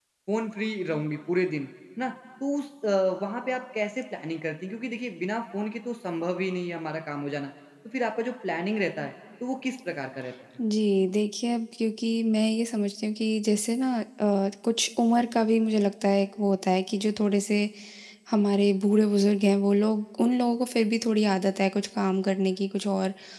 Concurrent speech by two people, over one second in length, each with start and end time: none

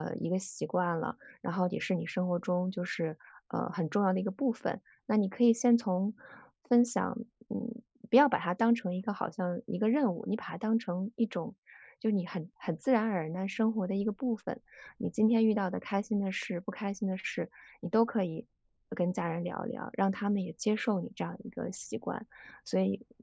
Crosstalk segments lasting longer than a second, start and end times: none

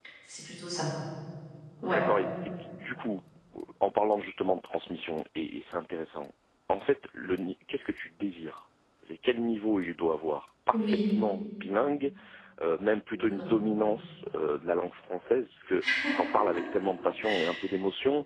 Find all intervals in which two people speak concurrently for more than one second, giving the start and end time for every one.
none

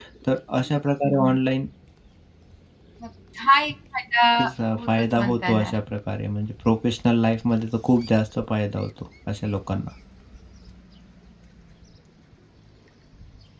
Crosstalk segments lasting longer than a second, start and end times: 4.4-5.8

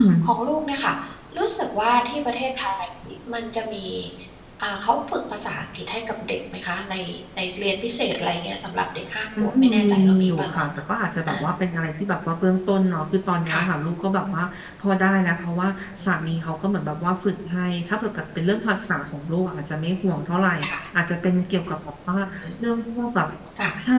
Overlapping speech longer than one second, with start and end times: 9.4-10.6

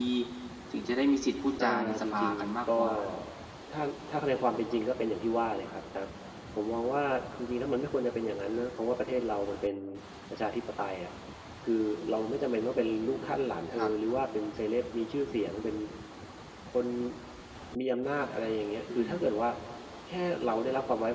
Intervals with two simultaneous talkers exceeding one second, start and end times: 1.6-2.8

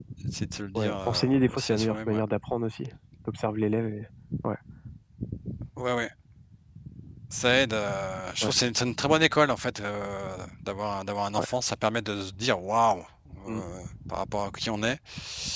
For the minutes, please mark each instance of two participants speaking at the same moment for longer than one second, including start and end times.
0.8-2.2

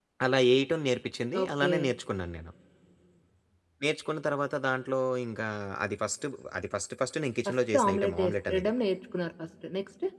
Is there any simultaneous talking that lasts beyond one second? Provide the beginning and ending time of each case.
7.5-8.7

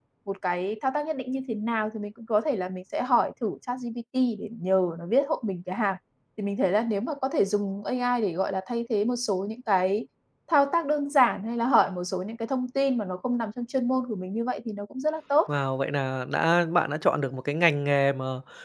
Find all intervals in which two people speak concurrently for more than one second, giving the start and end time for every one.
none

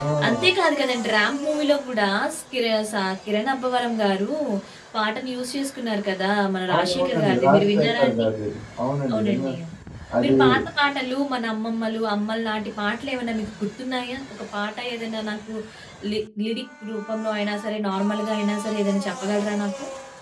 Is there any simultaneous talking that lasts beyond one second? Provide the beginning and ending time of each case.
6.7-8.2

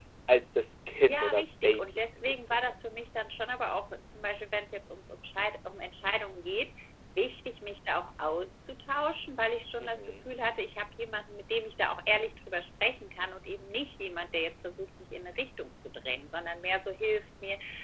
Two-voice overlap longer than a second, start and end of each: 1.0-2.8

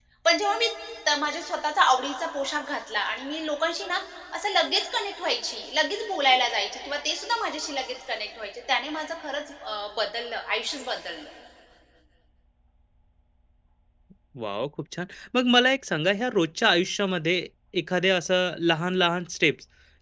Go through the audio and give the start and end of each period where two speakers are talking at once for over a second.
none

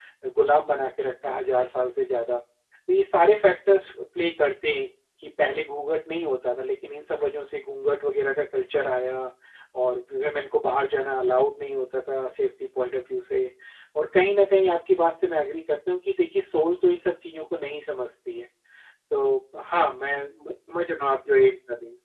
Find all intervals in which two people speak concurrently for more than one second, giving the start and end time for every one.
none

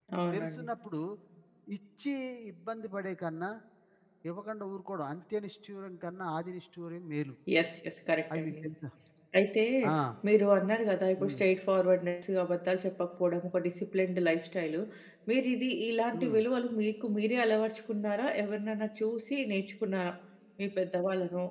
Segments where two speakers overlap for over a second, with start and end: none

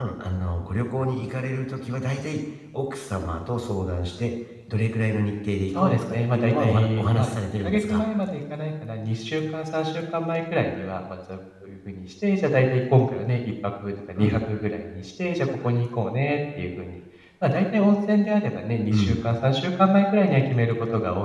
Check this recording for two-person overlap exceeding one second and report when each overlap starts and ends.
5.8-8.0

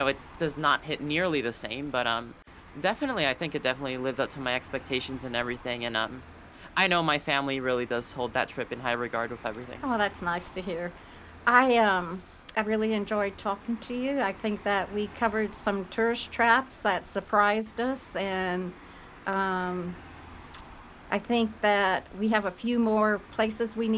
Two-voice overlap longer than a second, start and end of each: none

